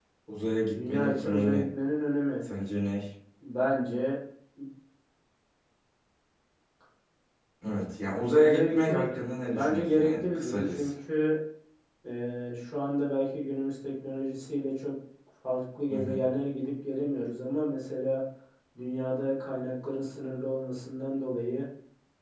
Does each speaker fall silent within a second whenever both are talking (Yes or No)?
No